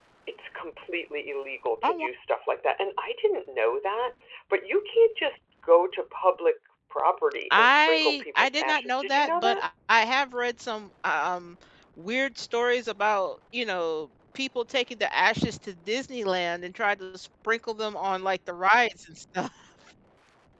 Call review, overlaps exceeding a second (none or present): present